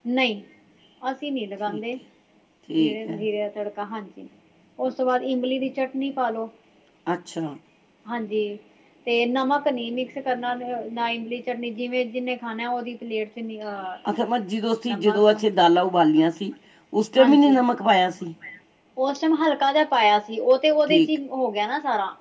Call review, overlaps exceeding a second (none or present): none